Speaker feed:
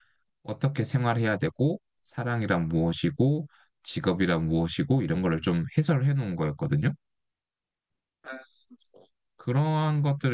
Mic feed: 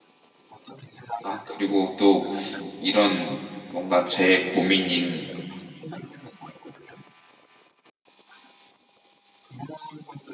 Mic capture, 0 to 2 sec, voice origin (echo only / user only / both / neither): both